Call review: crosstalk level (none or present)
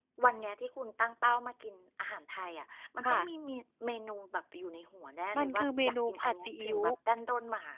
present